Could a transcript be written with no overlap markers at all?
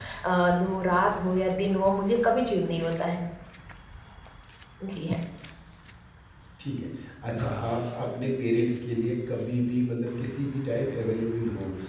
Yes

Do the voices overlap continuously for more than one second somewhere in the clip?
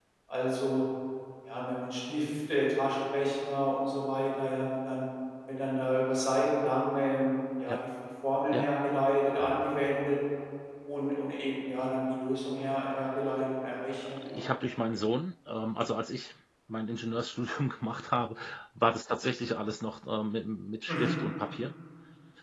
No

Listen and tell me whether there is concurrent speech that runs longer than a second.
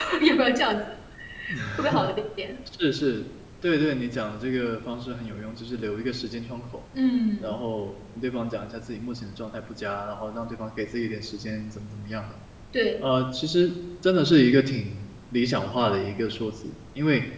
No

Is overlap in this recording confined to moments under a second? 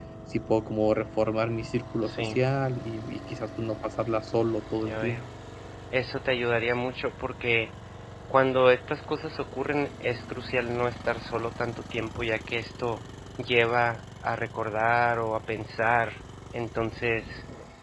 Yes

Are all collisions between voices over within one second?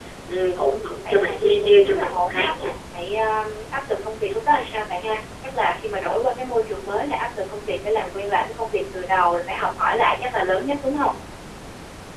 No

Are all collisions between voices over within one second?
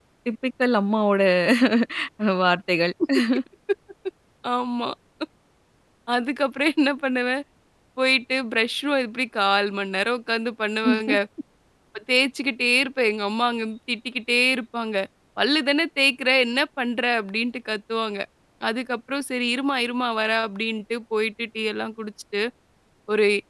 Yes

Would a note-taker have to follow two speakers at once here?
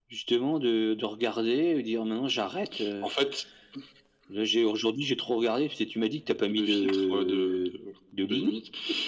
Yes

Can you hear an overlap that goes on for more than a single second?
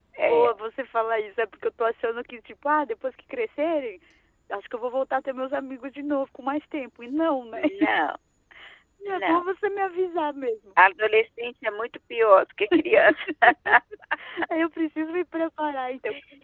No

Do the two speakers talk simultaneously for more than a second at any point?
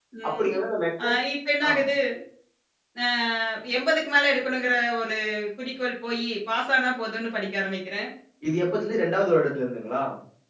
No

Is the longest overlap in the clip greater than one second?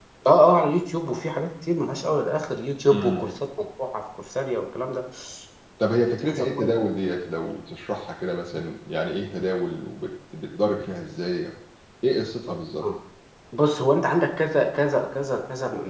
No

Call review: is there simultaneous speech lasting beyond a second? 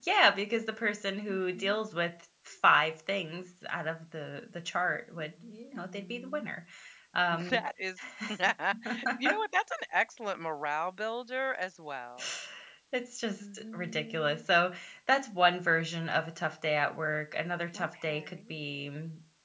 Yes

